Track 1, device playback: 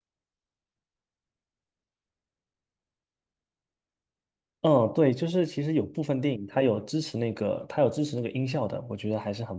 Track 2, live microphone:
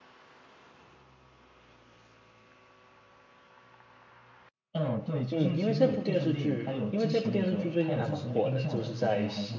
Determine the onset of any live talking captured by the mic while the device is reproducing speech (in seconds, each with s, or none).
5.3 s